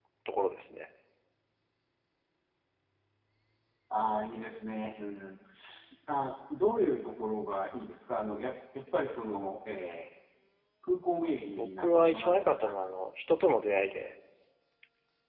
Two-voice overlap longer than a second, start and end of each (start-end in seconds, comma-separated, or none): 11.5-12.7